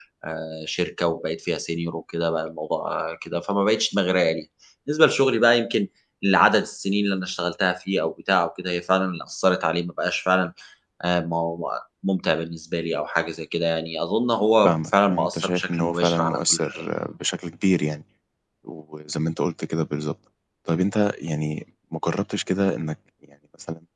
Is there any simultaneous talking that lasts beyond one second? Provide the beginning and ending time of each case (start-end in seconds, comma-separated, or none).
14.6-16.8